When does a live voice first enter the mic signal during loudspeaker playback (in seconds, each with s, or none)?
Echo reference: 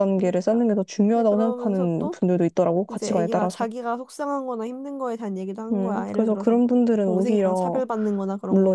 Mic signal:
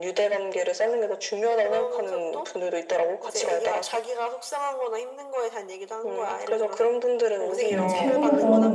7.7 s